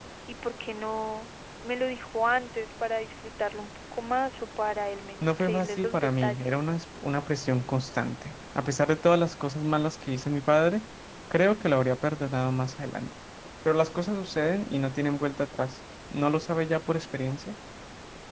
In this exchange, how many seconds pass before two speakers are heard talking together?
5.2 s

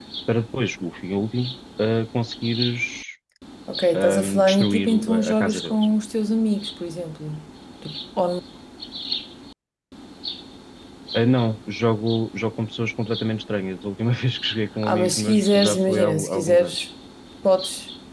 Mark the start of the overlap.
3.9 s

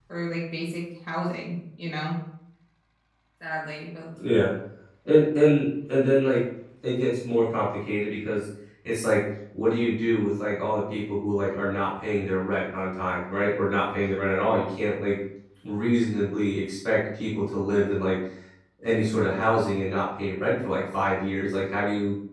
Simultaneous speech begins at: none

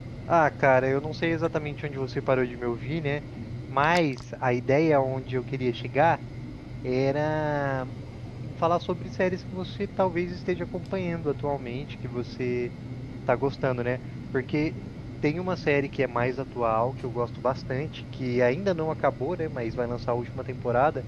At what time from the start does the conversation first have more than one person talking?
none

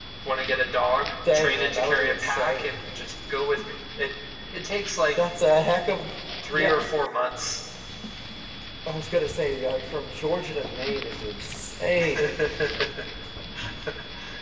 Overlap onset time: 1.3 s

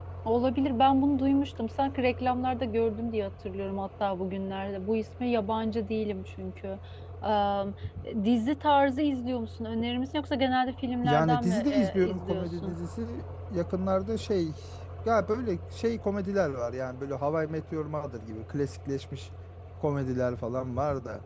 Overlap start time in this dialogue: 11.0 s

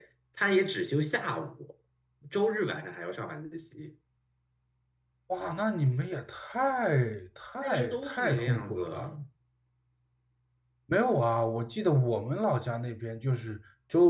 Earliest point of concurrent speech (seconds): 7.6 s

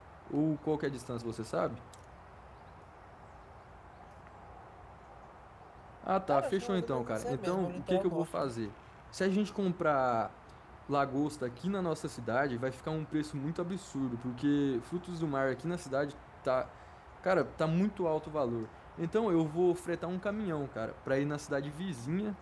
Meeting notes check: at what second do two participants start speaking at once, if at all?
6.3 s

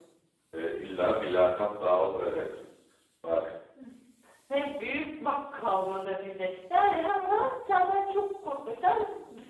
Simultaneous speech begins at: none

